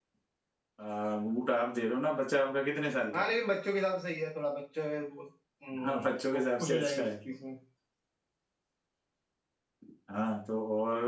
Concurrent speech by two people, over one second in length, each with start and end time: 5.8-7.1

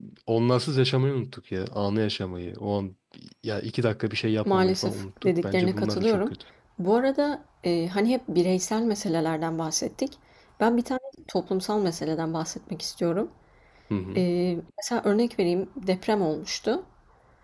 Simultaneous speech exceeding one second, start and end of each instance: 4.4-6.3

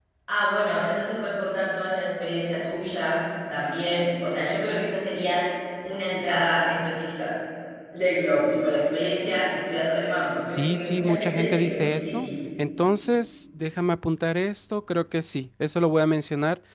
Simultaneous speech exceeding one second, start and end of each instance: 10.6-12.3

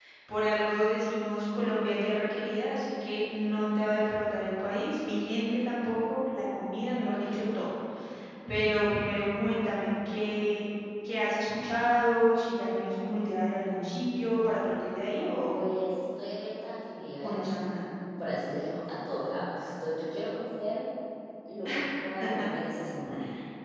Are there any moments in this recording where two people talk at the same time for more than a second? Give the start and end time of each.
none

